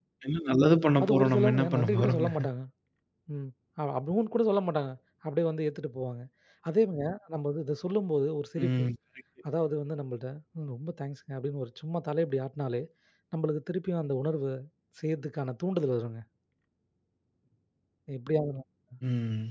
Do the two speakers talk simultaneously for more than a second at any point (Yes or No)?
Yes